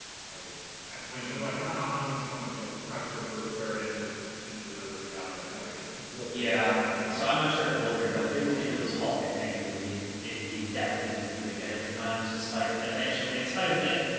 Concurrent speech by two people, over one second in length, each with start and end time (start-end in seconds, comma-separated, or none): 6.2-8.6